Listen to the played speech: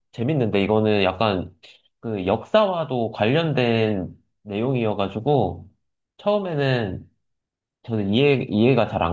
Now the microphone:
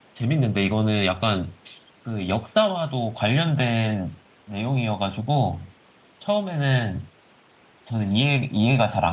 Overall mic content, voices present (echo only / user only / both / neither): echo only